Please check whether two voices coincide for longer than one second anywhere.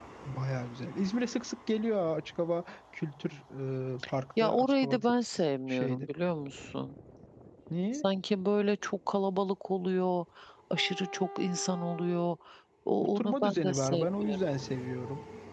Yes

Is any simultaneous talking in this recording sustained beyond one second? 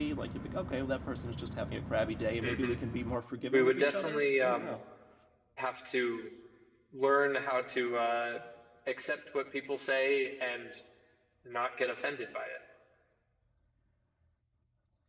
Yes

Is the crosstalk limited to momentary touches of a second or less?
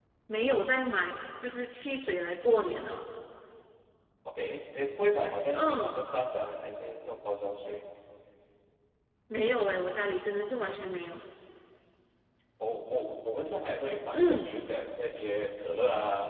Yes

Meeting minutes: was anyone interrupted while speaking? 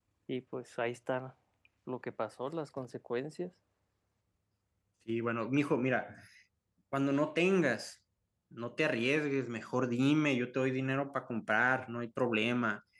No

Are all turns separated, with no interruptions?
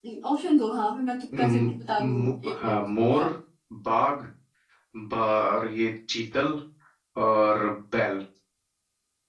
No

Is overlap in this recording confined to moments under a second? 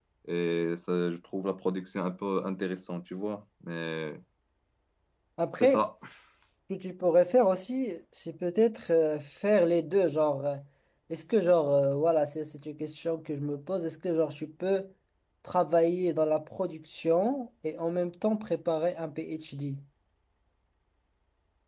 Yes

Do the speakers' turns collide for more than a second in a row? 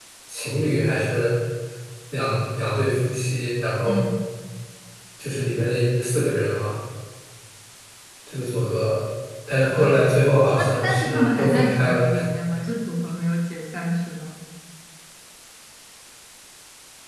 Yes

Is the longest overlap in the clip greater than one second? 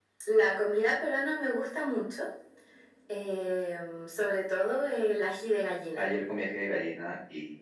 No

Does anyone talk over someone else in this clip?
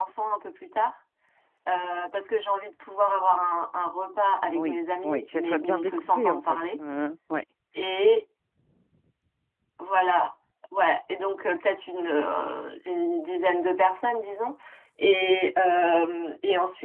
Yes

